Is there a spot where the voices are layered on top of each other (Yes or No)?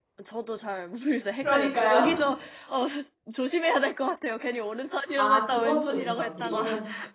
Yes